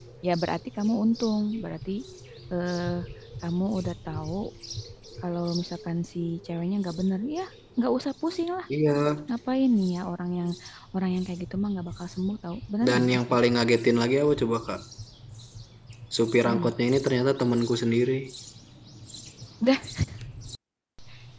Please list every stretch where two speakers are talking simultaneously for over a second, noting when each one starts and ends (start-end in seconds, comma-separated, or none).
none